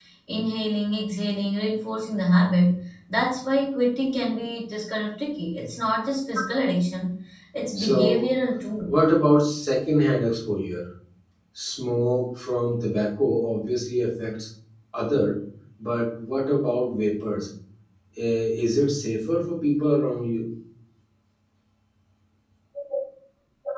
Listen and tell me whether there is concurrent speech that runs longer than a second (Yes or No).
No